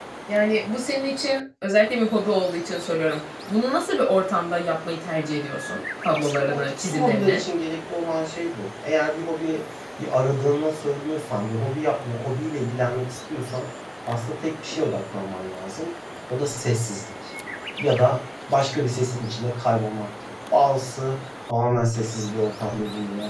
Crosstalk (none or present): present